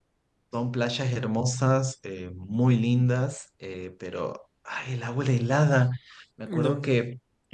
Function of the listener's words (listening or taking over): listening